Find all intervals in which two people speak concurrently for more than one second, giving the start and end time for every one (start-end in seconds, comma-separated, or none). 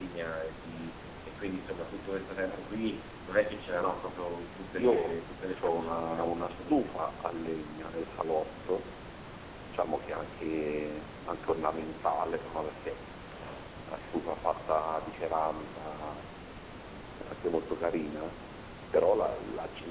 4.7-6.9